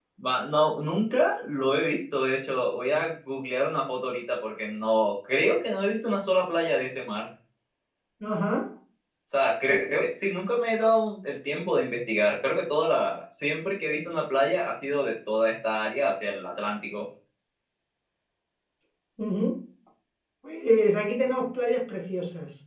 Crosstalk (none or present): none